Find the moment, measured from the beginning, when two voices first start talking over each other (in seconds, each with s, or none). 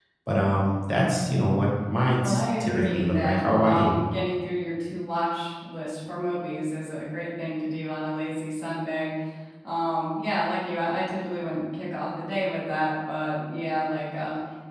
2.2 s